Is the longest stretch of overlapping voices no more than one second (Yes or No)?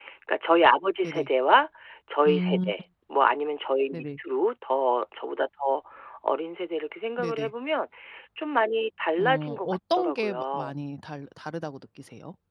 No